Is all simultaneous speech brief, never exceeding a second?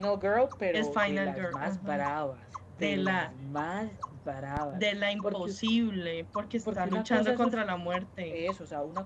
No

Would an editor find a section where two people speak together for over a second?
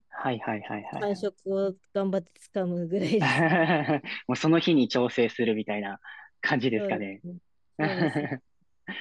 No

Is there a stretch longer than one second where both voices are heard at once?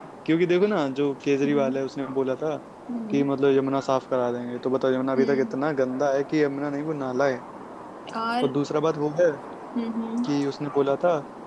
No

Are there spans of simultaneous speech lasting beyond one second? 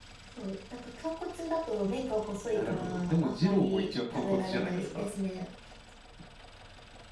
Yes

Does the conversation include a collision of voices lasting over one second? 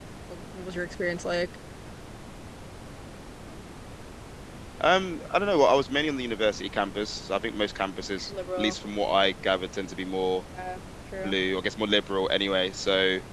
No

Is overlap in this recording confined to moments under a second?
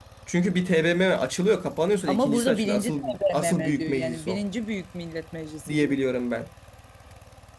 No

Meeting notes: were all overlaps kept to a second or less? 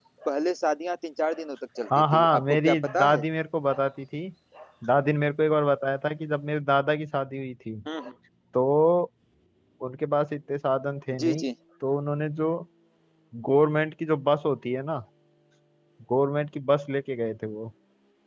No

